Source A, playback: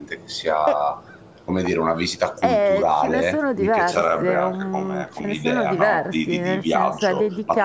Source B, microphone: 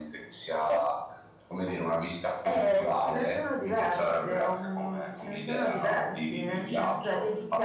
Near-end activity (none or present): none